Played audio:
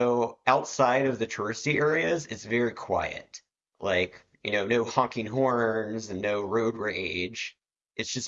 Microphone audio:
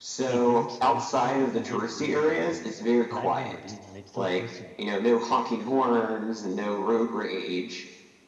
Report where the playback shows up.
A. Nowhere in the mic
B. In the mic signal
B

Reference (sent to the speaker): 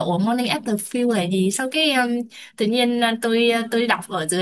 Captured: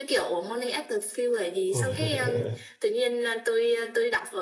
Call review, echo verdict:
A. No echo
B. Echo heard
B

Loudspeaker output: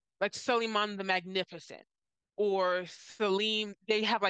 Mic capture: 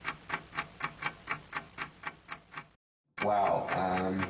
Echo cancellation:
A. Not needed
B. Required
A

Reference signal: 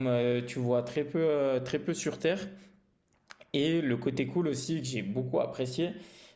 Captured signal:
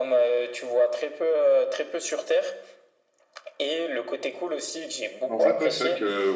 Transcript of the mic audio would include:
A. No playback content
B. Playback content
B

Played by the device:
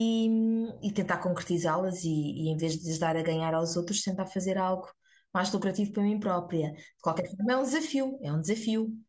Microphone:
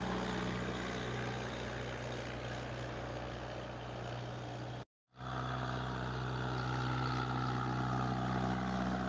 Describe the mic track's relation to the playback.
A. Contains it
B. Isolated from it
B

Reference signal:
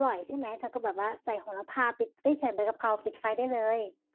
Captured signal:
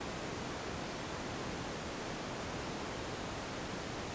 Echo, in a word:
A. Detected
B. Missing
B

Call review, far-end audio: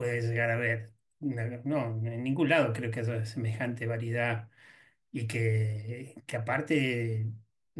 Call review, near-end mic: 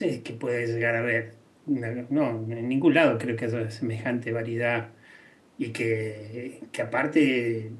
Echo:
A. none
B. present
B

